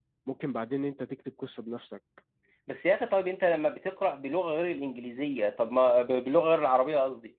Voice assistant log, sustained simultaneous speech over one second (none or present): none